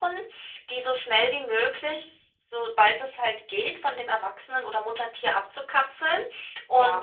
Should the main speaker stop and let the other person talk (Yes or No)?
No